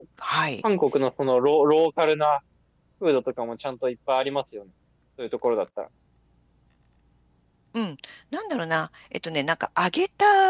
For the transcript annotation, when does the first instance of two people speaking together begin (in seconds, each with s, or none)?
none